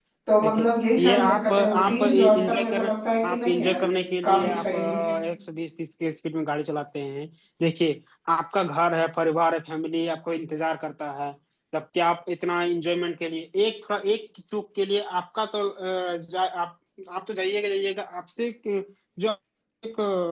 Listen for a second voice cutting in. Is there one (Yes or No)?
Yes